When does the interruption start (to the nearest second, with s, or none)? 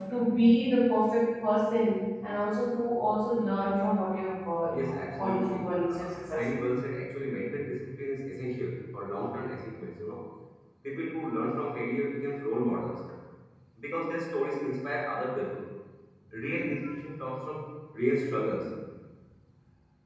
5 s